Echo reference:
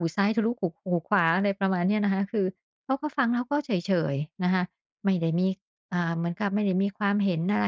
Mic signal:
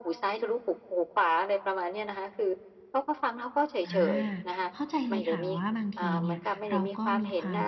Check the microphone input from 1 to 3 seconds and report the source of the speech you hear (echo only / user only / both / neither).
echo only